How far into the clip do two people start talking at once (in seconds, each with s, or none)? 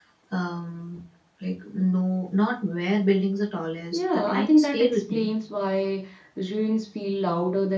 3.9 s